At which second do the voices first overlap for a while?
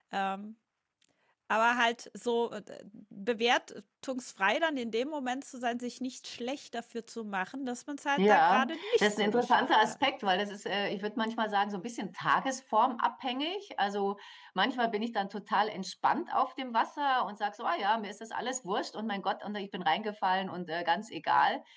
8.2 s

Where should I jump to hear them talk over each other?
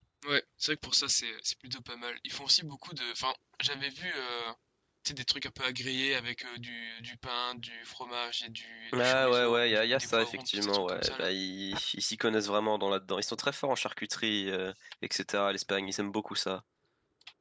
8.9 s

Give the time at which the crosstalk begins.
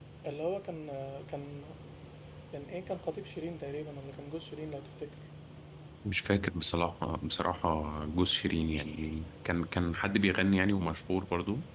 none

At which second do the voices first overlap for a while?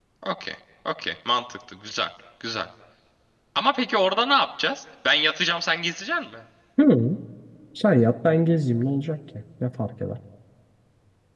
none

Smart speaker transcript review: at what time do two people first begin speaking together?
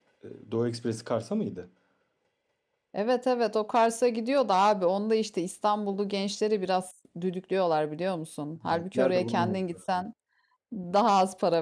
8.6 s

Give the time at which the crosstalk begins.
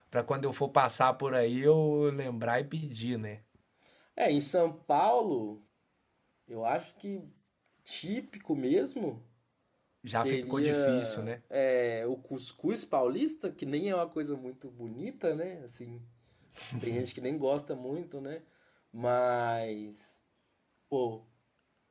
10.1 s

